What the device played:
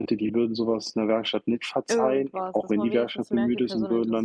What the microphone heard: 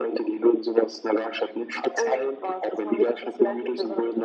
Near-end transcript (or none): none